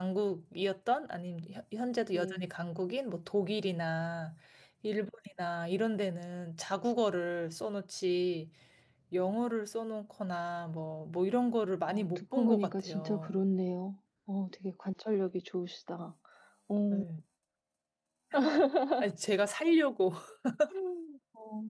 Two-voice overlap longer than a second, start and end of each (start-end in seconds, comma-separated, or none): 11.9-13.4